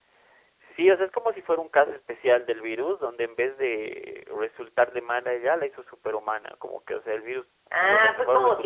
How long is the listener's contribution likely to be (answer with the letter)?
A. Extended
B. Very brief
A